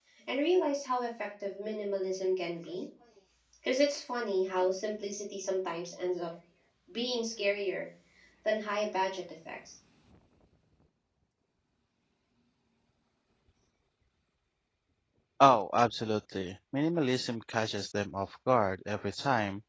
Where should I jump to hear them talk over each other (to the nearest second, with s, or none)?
none